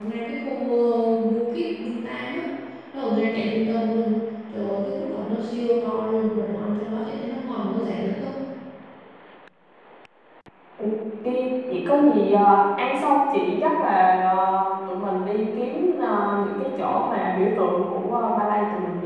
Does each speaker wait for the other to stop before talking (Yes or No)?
Yes